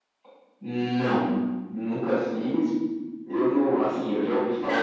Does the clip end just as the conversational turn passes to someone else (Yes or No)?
Yes